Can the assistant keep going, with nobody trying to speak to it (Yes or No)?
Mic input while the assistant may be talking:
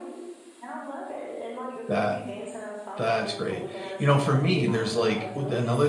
No